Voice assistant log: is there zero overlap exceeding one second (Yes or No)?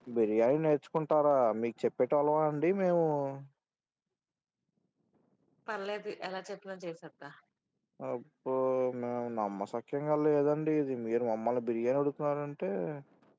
Yes